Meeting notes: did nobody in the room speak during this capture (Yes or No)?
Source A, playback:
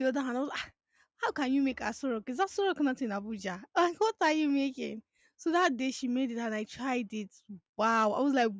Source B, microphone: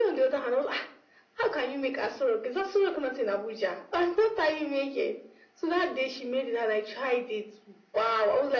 Yes